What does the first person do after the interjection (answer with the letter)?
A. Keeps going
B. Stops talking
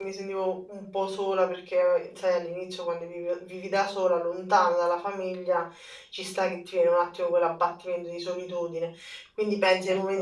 A